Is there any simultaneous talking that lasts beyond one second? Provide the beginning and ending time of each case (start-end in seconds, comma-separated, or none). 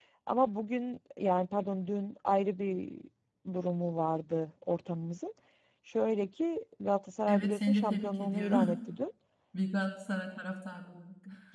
7.3-8.8